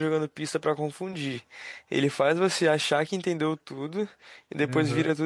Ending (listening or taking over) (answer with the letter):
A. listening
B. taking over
A